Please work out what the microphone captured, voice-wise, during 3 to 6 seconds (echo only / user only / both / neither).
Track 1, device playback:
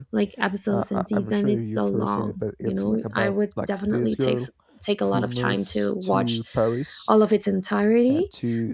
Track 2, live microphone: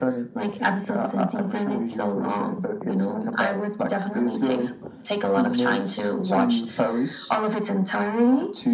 echo only